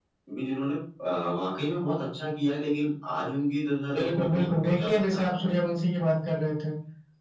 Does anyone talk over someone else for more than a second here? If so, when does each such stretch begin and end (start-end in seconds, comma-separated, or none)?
3.9-5.5